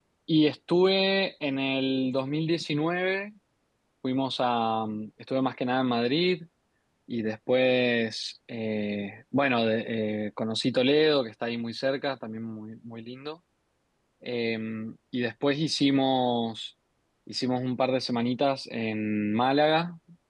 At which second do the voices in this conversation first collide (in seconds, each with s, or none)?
none